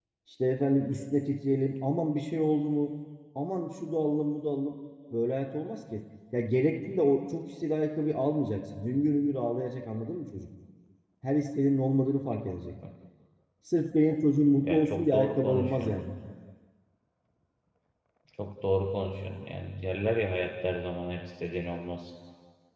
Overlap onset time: 14.6 s

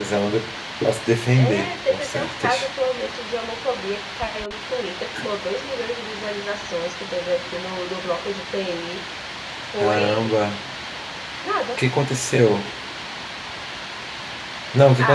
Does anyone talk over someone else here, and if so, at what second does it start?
1.3 s

